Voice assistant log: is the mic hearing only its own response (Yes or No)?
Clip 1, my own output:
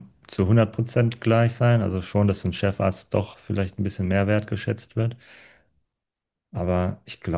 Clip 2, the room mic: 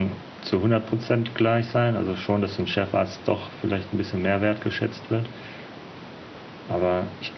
Yes